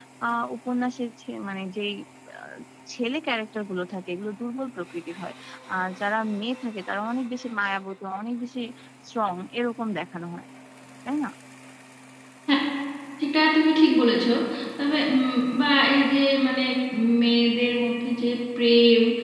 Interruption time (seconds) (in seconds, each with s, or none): none